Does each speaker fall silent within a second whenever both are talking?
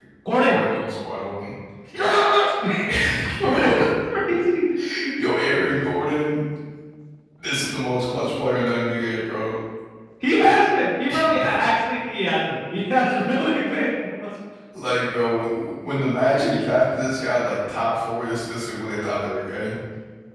Yes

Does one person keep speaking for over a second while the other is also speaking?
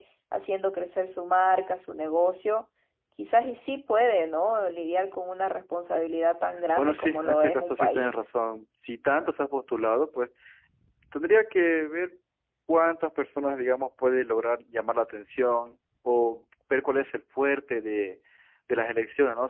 Yes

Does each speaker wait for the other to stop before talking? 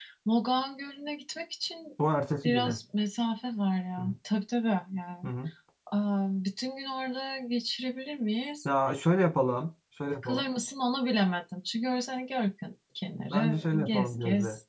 No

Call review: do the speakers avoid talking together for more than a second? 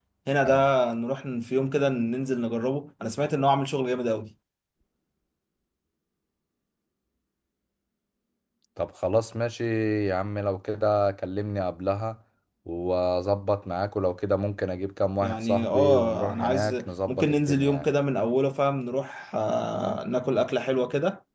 No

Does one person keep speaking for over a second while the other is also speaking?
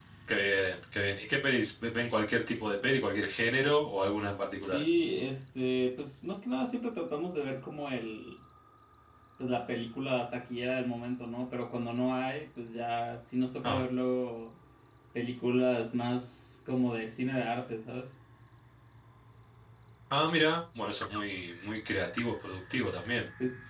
No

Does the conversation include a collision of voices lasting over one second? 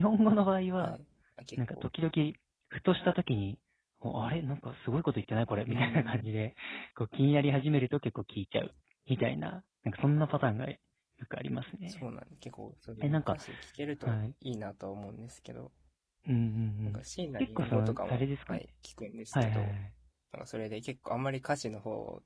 Yes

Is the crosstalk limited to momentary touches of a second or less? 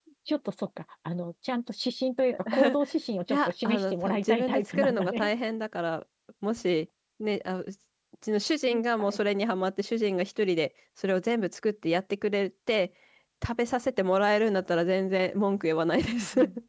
No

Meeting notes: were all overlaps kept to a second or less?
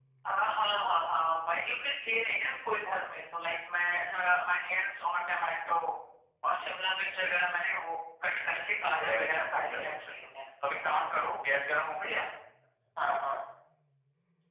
No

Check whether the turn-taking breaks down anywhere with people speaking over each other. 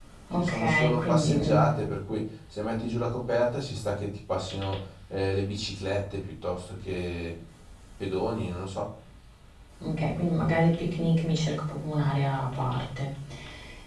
Yes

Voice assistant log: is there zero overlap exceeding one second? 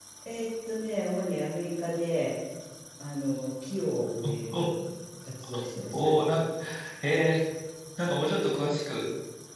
Yes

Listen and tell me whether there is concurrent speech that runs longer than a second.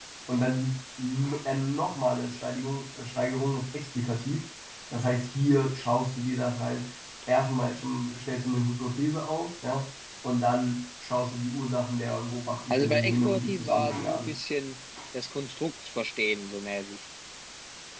Yes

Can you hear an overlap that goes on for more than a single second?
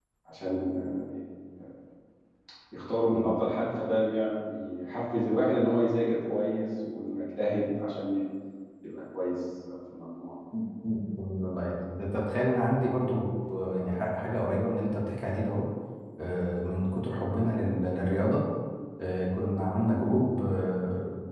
No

